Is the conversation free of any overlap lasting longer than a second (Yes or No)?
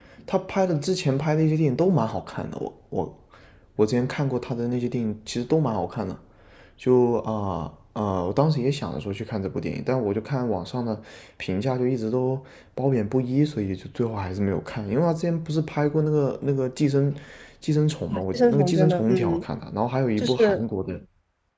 No